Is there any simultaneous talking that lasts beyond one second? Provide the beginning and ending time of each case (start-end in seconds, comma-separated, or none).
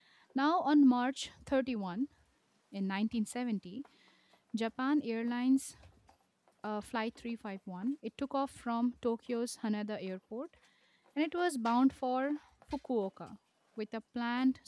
none